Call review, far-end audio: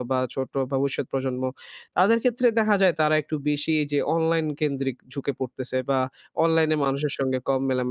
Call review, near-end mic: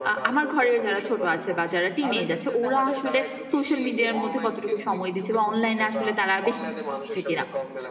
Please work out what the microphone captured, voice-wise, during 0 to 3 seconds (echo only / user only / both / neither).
both